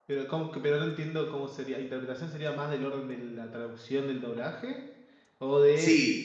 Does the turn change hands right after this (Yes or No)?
Yes